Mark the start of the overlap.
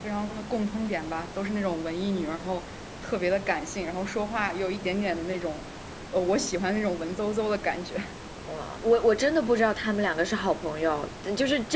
none

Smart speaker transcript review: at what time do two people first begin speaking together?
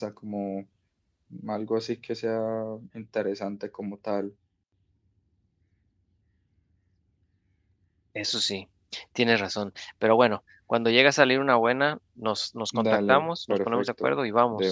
12.7 s

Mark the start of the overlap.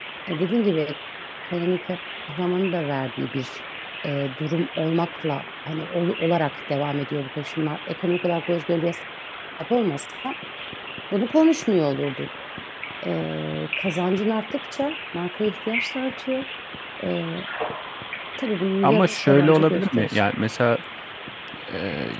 18.8 s

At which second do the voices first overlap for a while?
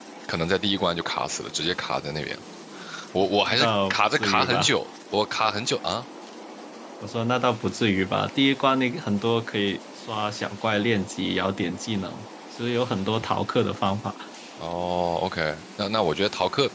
3.4 s

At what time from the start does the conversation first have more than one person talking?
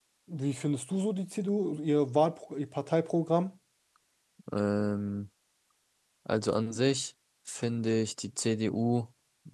none

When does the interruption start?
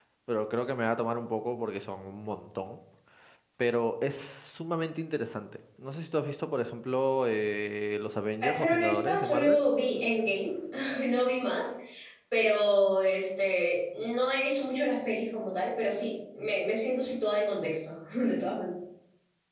8.4 s

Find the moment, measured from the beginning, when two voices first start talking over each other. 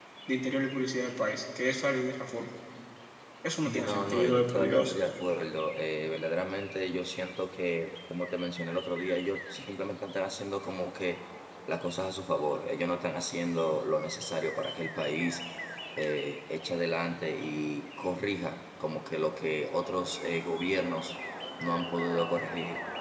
3.6 s

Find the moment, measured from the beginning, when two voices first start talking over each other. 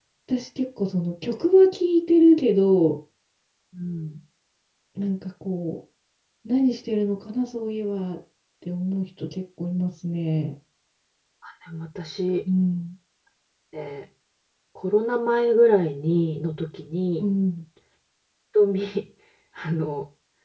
none

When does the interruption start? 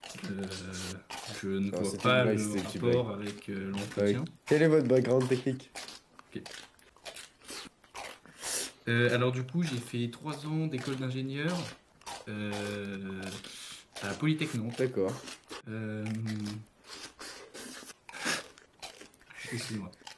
1.7 s

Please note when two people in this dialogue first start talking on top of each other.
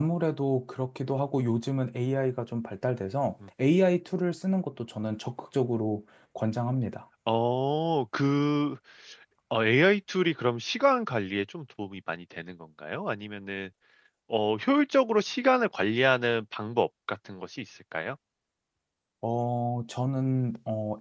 none

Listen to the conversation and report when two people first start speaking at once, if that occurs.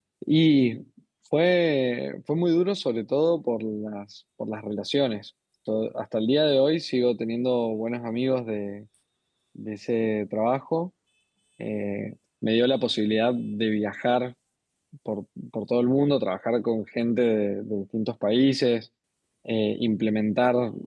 none

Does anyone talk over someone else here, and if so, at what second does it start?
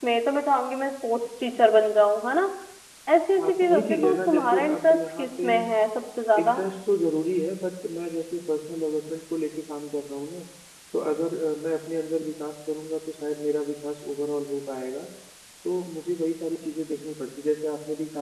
3.4 s

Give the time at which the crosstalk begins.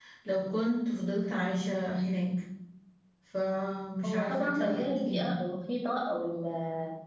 4.0 s

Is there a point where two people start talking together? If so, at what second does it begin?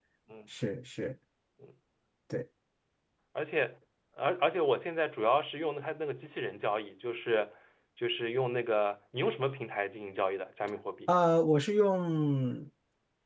none

